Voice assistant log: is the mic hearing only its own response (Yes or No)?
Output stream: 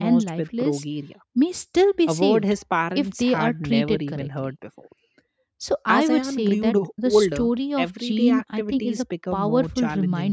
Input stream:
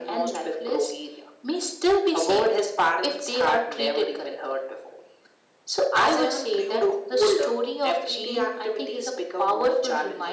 Yes